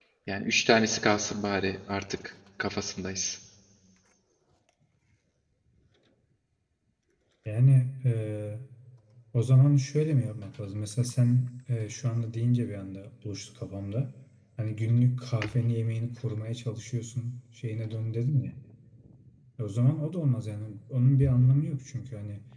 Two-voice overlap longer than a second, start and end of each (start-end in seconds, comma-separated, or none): none